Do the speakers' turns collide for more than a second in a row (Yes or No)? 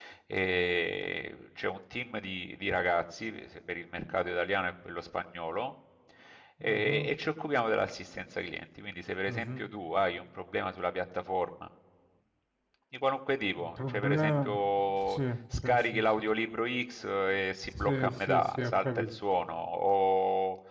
Yes